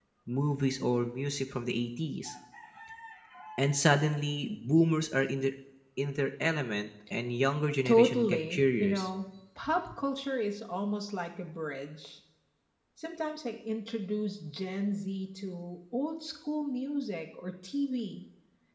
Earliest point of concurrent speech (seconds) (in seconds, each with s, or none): 7.8 s